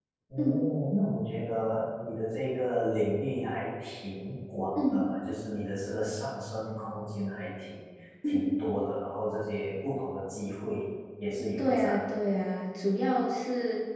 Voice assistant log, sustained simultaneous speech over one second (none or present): none